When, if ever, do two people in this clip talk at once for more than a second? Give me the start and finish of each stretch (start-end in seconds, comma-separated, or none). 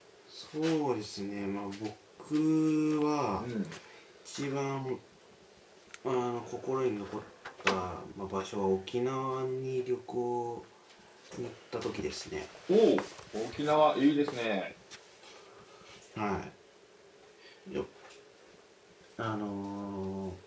none